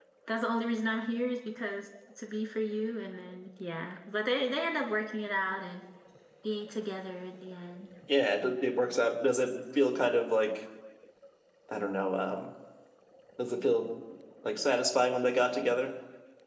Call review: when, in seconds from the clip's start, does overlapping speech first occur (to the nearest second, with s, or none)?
none